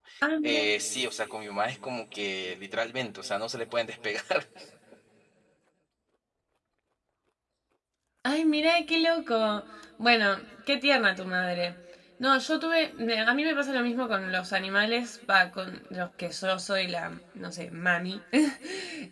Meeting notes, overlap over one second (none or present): none